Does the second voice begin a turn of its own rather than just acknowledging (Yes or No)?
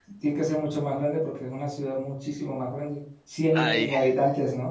No